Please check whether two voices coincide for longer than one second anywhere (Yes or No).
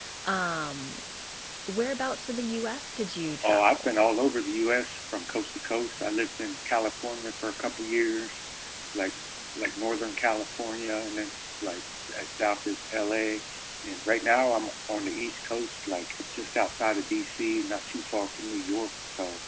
No